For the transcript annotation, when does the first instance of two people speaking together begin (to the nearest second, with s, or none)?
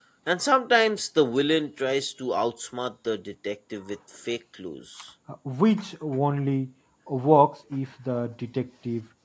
none